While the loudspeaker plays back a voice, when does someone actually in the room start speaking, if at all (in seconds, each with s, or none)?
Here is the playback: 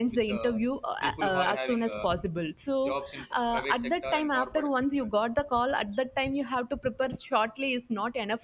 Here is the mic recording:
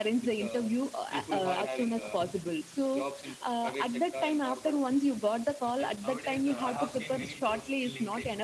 5.8 s